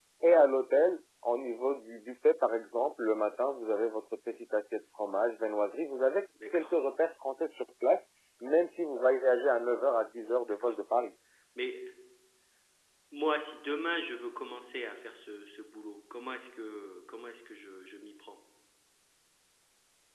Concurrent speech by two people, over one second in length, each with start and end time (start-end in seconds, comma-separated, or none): none